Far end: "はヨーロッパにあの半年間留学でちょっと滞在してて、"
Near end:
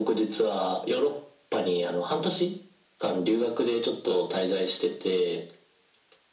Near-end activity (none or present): none